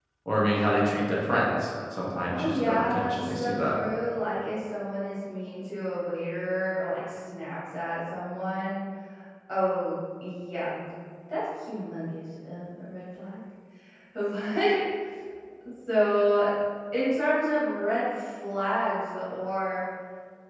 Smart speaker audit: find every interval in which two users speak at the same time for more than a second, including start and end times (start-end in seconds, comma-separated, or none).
2.3-3.6